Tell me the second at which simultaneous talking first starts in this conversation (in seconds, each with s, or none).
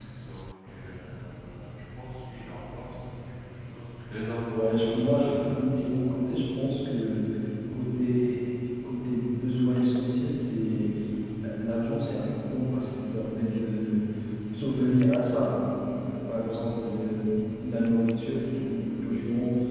4.5 s